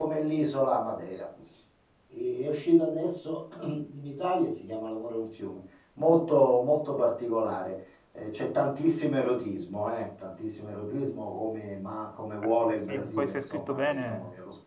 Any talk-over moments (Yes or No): Yes